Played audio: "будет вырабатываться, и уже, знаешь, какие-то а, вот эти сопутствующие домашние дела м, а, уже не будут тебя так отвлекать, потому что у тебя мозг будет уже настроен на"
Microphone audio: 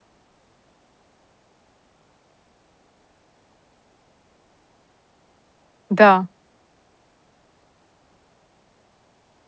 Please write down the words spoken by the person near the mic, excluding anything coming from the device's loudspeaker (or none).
Да,